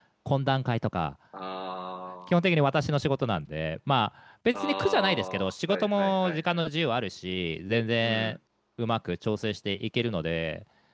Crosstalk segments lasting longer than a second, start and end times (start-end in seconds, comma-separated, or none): 4.5-6.6